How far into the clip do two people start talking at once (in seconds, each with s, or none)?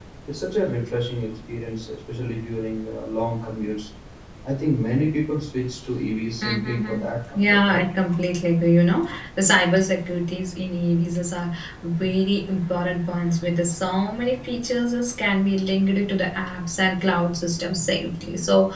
6.4 s